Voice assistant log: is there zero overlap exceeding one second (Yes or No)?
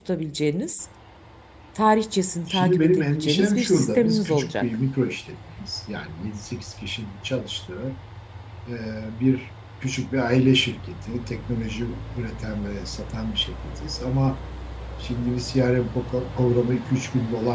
No